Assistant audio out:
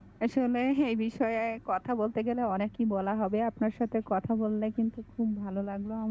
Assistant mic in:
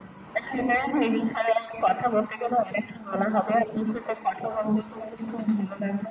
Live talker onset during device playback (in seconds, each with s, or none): none